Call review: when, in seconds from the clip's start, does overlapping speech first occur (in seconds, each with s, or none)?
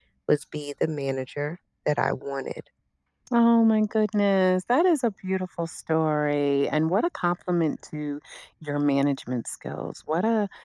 none